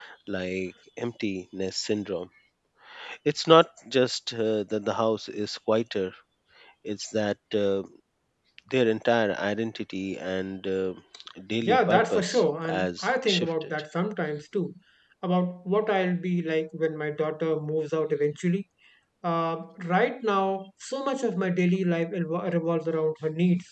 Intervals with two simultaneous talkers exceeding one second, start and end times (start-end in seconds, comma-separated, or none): 11.6-13.7